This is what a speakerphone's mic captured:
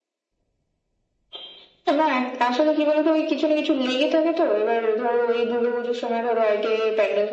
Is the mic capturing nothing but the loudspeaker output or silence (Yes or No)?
Yes